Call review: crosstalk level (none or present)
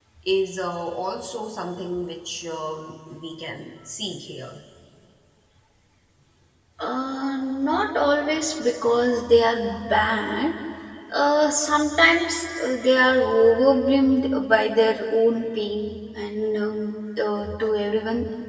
none